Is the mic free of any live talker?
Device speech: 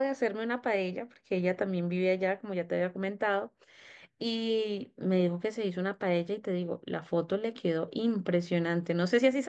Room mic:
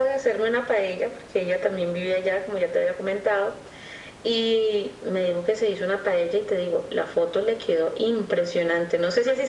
Yes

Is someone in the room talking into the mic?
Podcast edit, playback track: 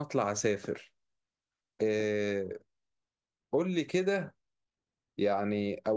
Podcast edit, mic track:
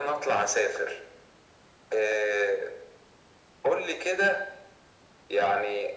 No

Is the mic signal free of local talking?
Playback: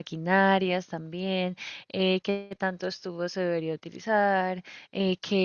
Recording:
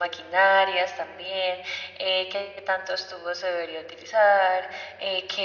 Yes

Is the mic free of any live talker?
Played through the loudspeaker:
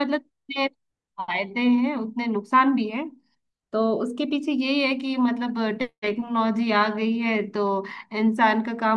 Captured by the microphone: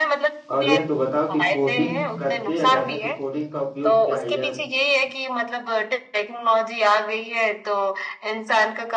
No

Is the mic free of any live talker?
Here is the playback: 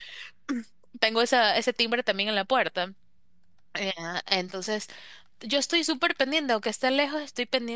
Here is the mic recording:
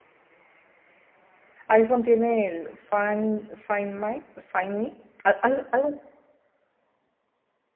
No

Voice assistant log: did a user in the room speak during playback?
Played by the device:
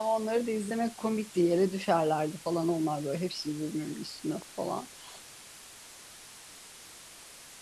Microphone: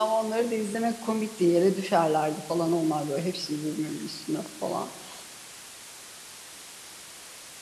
No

